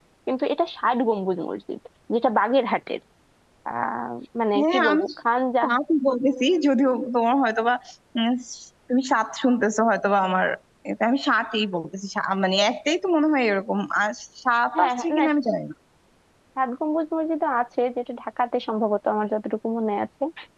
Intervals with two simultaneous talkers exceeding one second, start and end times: none

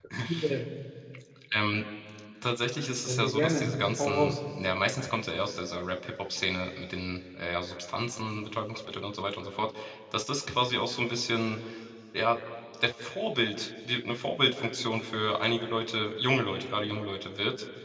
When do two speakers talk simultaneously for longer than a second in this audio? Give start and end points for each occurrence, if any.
3.1-4.3

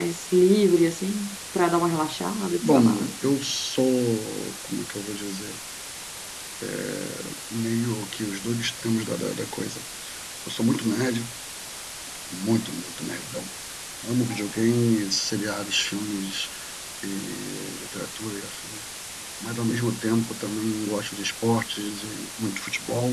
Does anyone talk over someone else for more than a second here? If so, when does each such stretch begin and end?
none

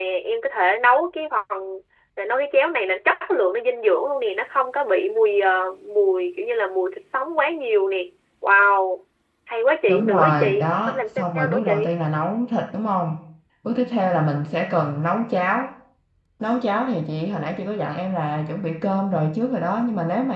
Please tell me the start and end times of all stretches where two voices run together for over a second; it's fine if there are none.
9.9-11.9

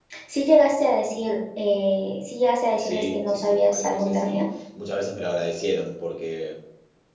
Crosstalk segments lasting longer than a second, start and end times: 2.8-4.4

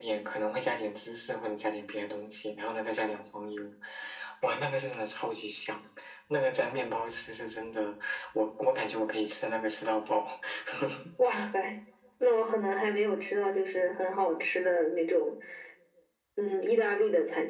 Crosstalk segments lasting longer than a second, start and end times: none

